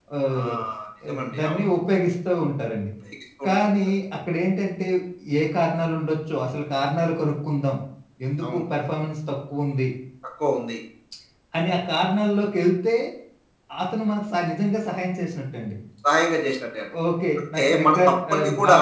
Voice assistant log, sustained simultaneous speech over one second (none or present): present